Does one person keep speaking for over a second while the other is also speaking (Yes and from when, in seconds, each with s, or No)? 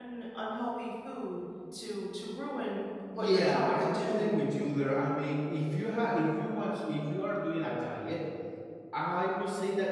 Yes, from 3.1 s